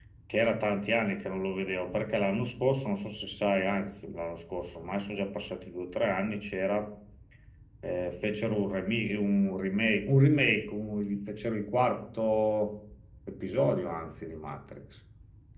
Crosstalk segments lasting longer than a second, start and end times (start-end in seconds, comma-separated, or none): none